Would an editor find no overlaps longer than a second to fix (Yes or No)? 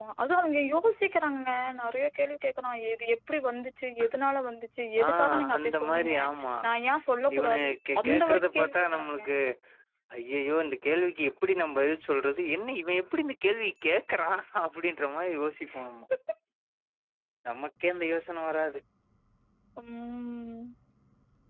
No